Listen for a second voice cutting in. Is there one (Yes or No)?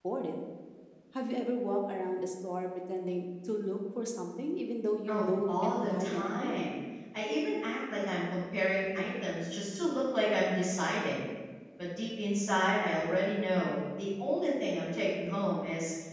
Yes